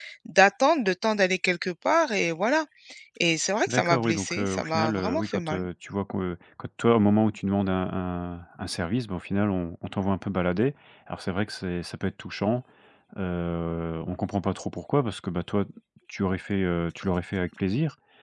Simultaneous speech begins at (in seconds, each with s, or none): 3.7 s